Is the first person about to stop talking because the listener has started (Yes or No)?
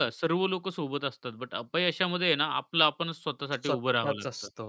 Yes